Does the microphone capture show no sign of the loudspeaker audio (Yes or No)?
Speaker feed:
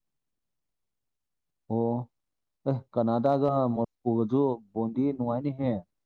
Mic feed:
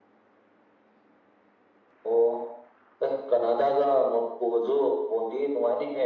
No